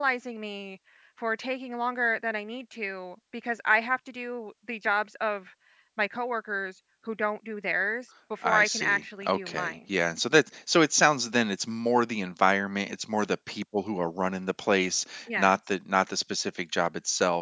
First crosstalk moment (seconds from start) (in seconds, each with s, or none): 8.4 s